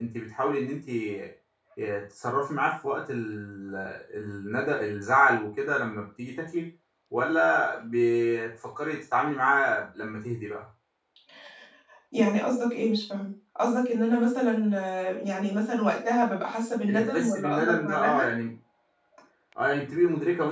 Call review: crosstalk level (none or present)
present